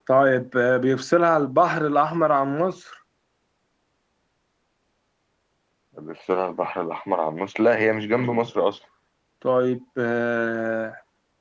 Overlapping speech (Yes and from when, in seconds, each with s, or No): No